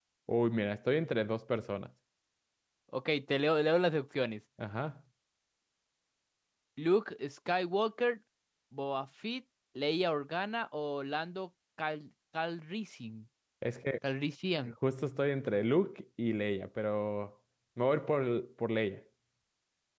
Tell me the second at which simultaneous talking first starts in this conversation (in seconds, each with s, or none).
none